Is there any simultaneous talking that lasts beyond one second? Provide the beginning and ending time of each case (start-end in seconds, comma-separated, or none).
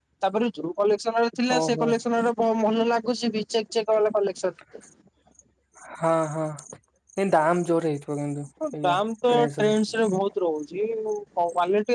none